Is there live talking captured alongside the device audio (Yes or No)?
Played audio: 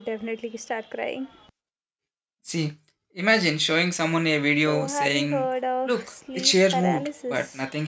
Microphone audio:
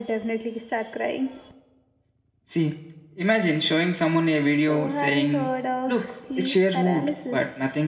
No